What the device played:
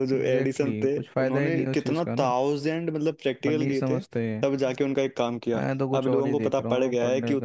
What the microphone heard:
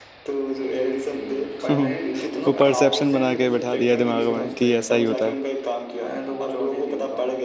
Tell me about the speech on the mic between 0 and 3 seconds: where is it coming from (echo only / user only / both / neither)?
both